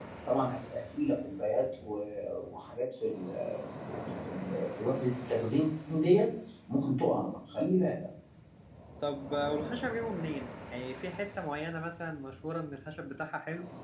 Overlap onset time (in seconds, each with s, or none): none